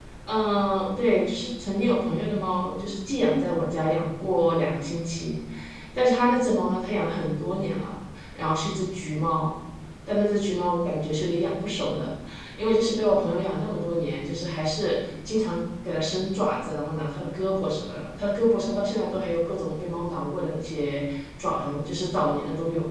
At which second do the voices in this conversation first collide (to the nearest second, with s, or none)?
none